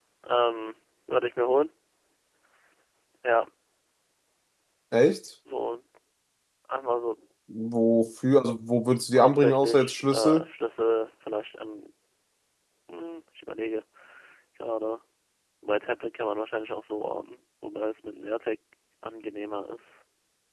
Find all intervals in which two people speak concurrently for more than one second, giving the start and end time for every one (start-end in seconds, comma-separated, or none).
9.2-10.4